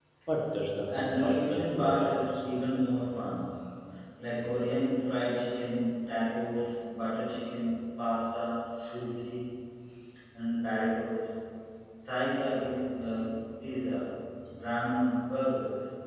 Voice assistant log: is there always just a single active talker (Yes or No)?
No